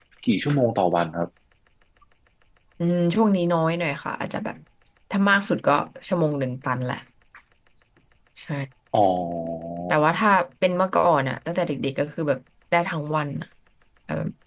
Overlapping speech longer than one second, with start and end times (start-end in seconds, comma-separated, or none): none